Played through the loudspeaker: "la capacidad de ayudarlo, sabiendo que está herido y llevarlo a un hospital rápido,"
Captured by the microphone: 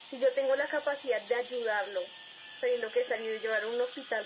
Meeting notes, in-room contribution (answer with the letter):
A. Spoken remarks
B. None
B